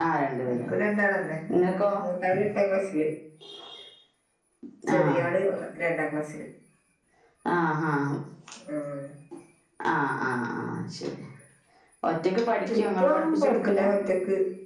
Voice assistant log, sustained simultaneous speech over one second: present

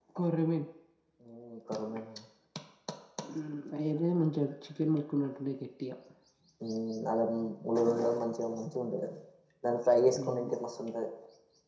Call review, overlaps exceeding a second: none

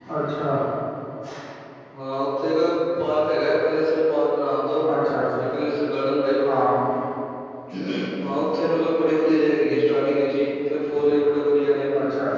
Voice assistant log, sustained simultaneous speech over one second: none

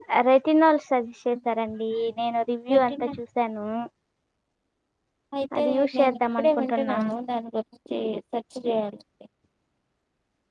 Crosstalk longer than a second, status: present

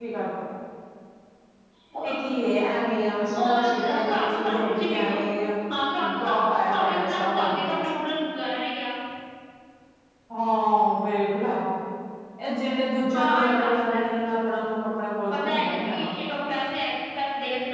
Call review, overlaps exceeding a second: present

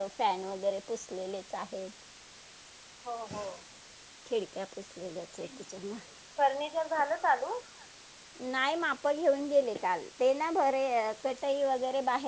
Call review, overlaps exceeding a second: none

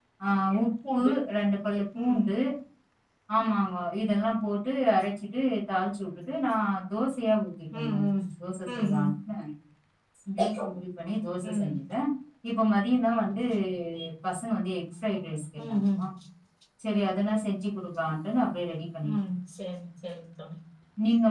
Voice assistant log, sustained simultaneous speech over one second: none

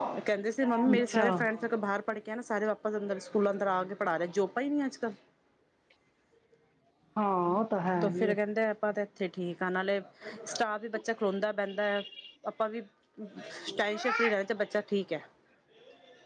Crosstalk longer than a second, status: none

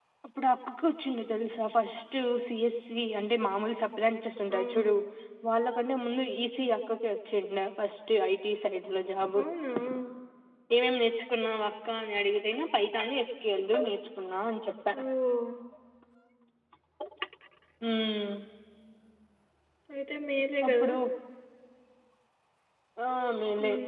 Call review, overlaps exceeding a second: none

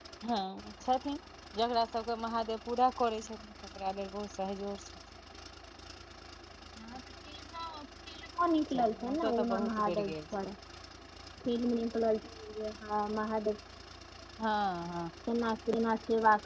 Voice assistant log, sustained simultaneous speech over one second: present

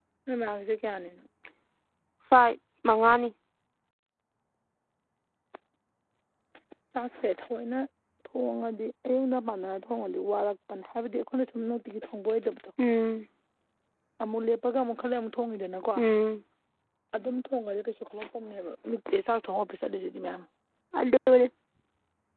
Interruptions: none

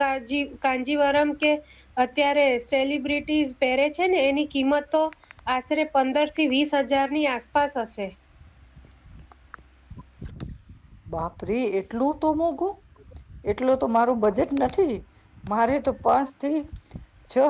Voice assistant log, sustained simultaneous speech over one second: none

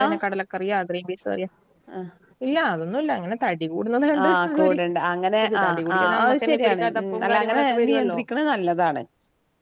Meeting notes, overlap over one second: present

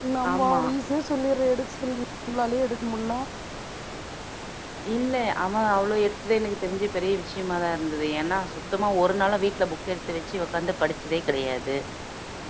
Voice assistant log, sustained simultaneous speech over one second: none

